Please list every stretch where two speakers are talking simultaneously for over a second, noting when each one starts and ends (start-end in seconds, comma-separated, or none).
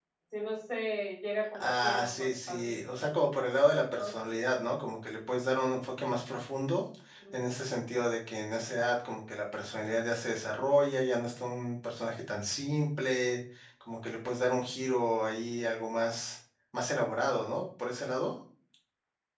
1.6-2.9